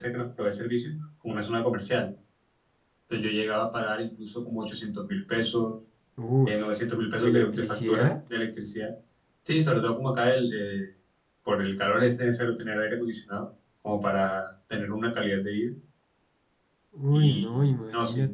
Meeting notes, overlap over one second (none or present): present